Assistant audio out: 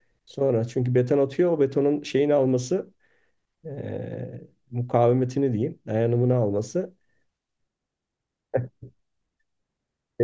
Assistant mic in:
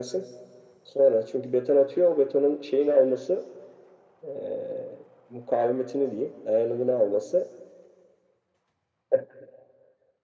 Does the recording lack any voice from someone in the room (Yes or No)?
Yes